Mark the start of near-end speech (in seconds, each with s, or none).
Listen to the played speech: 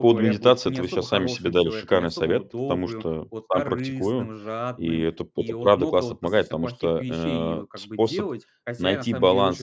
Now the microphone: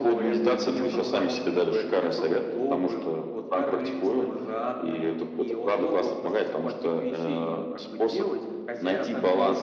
none